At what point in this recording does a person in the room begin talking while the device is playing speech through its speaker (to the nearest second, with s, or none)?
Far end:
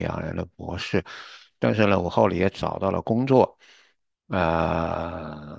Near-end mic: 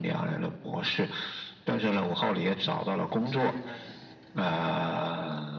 3 s